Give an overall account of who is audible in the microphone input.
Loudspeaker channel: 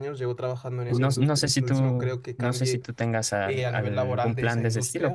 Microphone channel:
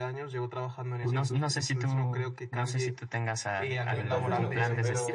both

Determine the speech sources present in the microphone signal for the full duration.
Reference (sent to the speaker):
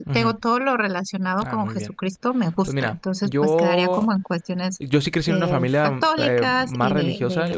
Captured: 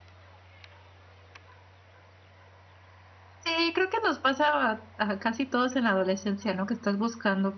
user only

